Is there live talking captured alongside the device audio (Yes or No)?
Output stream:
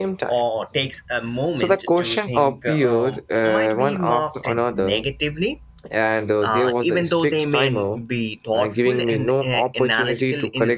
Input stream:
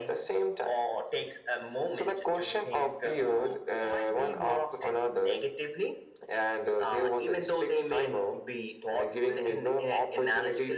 No